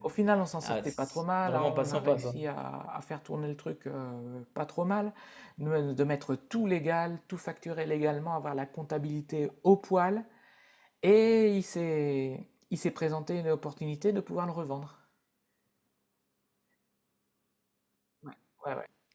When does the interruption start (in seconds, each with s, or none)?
0.6 s